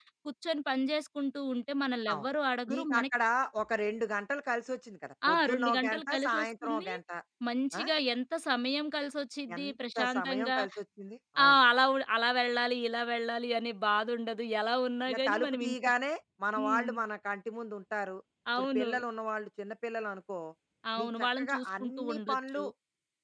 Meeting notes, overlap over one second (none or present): present